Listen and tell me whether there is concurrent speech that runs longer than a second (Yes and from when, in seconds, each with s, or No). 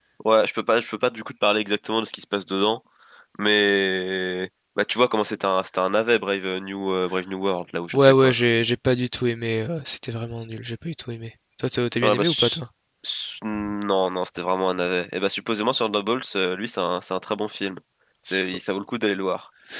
No